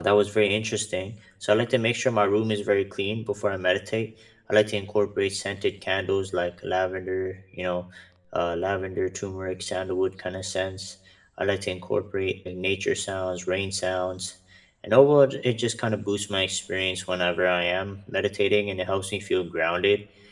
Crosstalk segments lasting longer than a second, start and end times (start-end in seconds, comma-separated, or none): none